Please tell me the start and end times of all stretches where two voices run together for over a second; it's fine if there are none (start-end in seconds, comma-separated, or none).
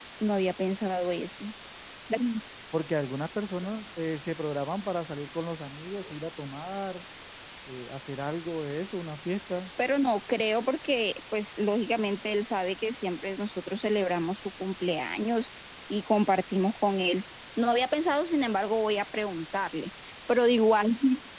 none